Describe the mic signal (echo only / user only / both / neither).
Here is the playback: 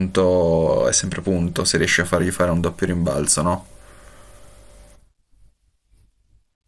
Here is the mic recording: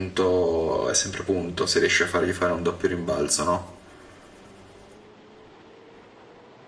echo only